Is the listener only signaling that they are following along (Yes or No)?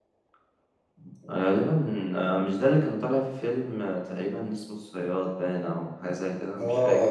No